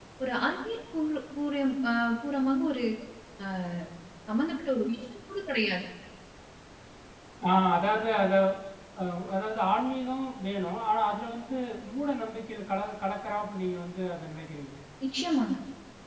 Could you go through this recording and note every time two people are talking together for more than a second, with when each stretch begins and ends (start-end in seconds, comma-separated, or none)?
none